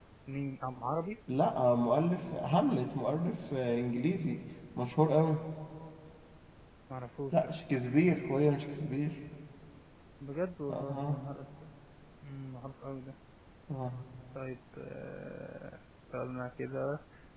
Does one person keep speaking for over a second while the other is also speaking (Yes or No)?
No